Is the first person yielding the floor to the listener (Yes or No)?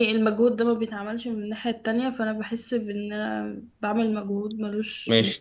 Yes